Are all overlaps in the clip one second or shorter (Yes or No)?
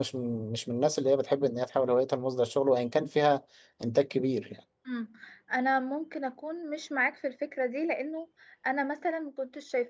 Yes